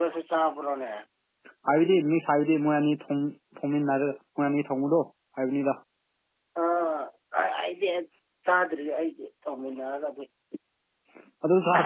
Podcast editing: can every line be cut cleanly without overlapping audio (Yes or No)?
Yes